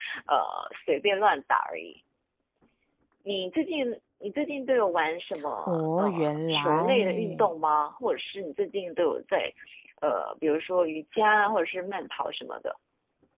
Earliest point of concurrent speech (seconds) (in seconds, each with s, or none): 5.7 s